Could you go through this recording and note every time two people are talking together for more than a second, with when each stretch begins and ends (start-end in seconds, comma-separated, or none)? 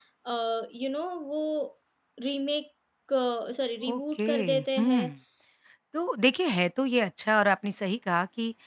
3.9-5.1